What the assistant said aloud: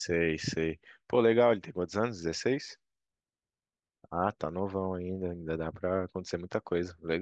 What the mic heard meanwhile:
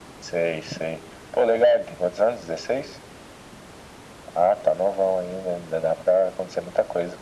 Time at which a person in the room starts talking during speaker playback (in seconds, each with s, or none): none